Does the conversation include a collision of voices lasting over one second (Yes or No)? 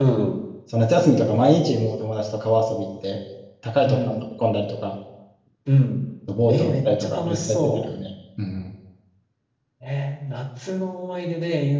Yes